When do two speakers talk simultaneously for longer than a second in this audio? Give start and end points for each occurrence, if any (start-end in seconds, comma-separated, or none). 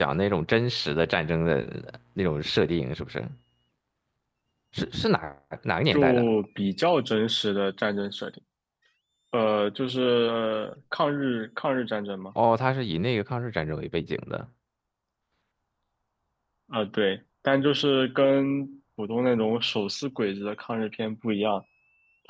none